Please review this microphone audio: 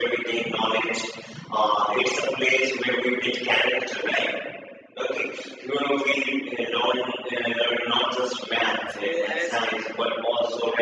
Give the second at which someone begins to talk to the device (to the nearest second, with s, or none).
9 s